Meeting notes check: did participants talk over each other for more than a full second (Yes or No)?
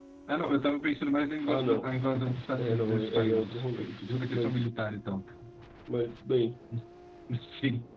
Yes